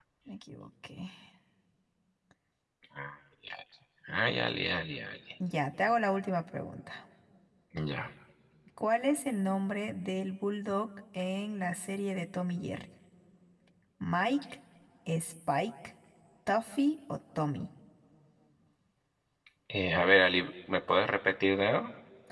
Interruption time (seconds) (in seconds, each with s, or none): none